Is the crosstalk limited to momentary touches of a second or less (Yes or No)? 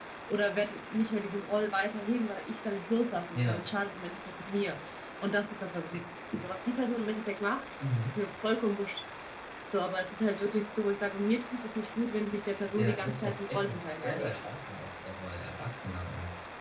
No